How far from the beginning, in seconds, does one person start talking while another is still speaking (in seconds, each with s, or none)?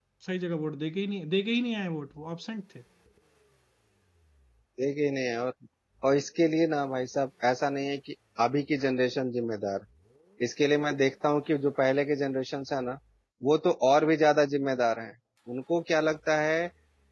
none